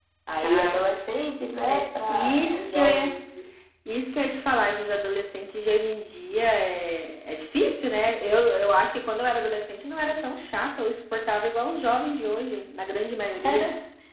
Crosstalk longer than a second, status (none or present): present